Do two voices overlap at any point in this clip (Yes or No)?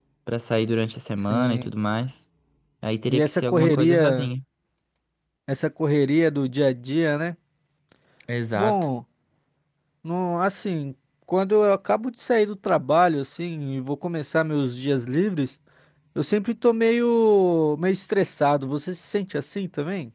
Yes